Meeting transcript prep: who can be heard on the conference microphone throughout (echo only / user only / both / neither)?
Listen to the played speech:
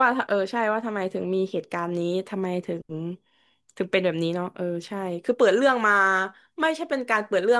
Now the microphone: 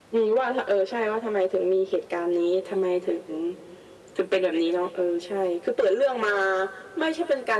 echo only